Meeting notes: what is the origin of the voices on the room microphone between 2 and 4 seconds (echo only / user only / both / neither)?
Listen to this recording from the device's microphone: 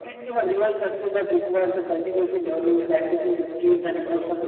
both